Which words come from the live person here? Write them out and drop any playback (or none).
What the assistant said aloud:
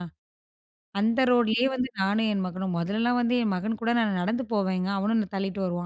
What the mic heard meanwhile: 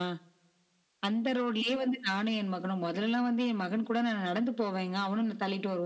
none